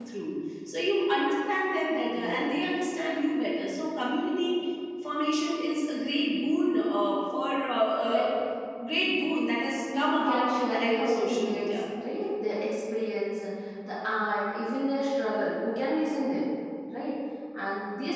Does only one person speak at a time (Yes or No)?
No